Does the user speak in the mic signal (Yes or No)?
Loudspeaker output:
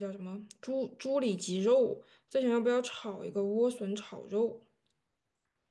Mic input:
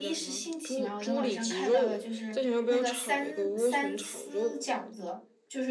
Yes